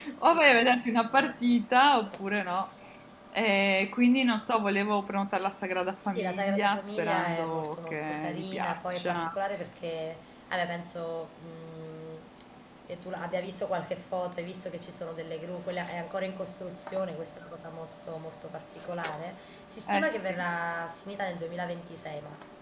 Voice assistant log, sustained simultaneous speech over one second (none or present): present